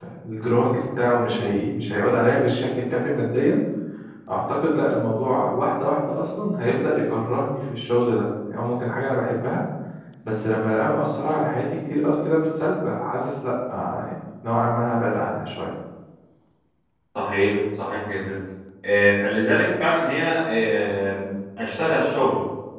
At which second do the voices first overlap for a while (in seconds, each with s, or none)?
none